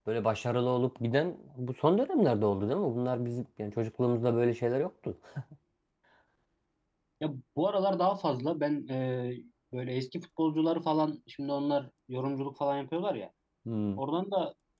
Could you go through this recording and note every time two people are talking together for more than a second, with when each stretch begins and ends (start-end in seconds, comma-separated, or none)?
none